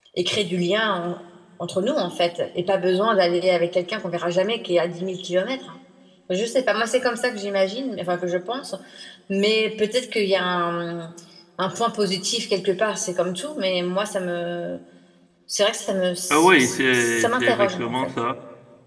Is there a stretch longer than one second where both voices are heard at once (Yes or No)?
Yes